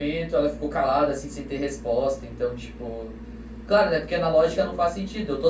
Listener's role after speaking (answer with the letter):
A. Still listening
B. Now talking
A